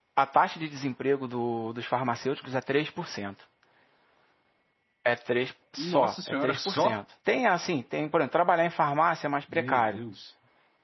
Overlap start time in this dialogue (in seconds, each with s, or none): 5.8 s